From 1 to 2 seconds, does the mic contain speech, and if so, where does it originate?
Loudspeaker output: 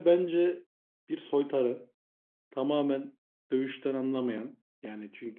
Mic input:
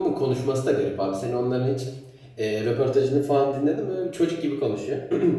user only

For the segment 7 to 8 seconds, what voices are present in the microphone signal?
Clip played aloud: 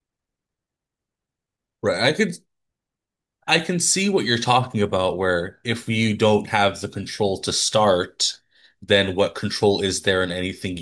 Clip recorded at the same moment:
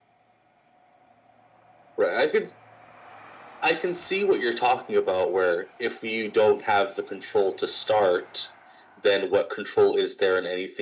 echo only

